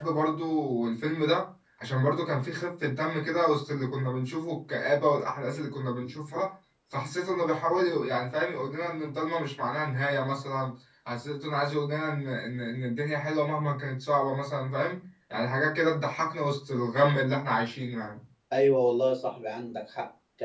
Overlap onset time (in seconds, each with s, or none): none